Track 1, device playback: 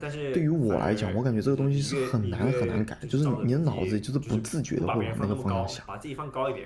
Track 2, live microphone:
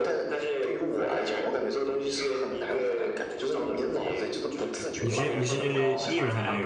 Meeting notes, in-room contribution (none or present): present